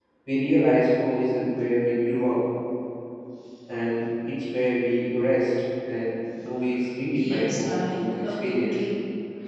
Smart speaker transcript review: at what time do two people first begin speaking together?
7.1 s

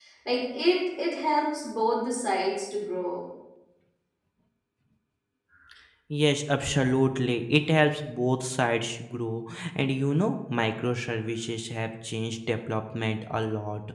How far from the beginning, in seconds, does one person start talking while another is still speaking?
none

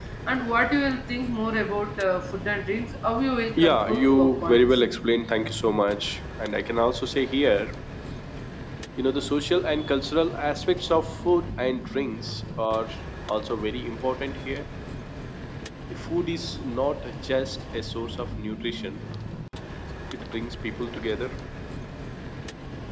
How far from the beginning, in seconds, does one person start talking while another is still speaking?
3.5 s

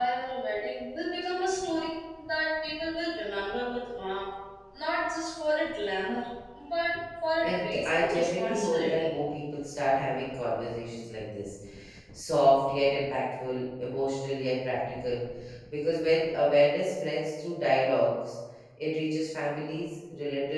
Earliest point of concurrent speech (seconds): 7.4 s

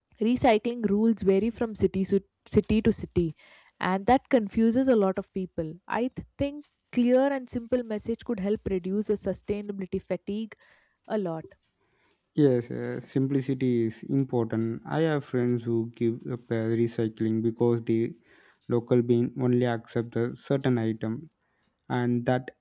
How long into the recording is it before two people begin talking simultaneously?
none

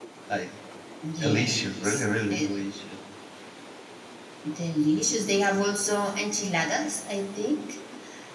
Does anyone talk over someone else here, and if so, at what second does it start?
1.2 s

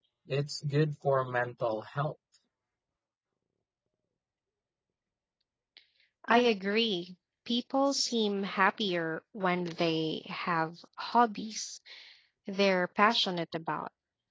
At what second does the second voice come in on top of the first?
none

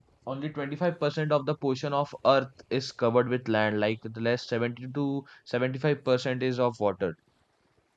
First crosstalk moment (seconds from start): none

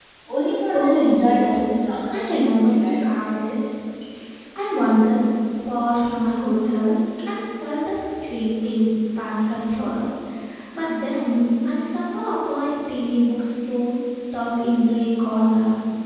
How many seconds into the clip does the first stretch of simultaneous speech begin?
0.7 s

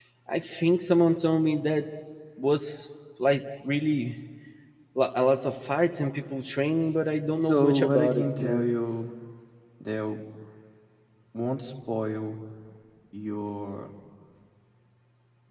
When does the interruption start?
7.4 s

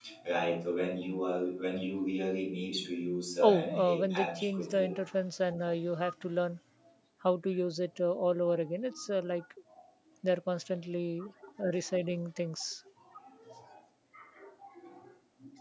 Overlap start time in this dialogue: 3.4 s

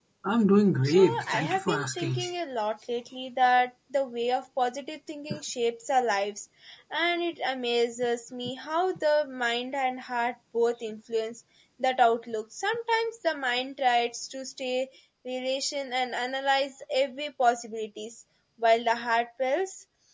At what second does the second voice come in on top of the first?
0.8 s

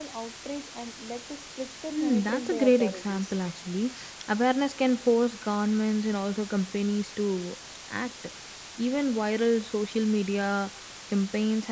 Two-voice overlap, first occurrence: 1.9 s

